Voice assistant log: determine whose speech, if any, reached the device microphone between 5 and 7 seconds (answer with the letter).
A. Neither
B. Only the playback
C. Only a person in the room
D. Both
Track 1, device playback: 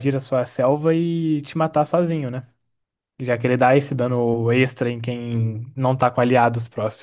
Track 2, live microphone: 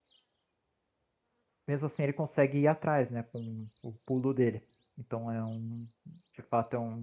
C